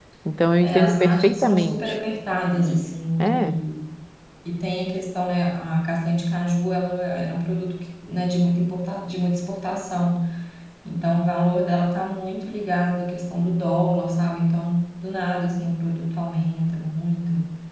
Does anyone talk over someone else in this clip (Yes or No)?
Yes